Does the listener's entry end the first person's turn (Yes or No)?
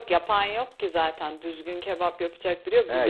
Yes